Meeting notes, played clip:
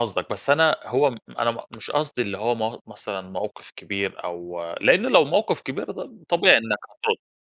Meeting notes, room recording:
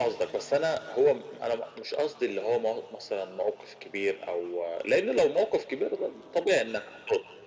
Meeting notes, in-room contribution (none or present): none